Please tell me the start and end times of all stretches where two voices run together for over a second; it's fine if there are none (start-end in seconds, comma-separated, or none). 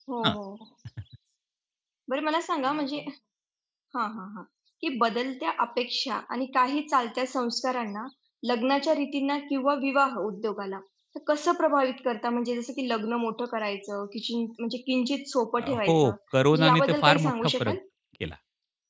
16.5-17.8